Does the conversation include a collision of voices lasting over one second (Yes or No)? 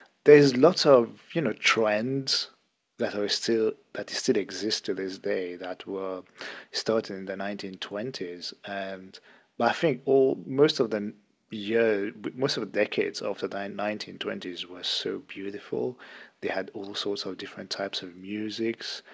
No